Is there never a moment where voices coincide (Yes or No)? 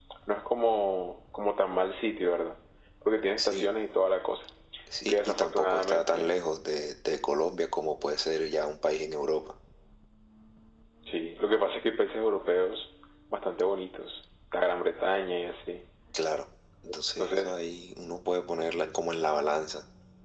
No